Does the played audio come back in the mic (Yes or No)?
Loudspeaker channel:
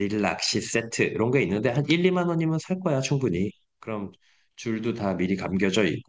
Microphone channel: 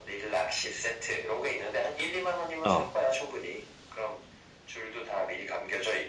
Yes